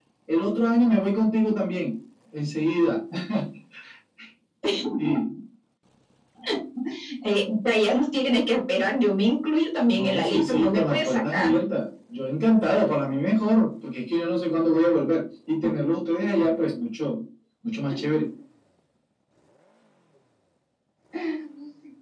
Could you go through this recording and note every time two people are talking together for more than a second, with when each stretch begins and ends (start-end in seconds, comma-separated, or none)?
9.9-11.6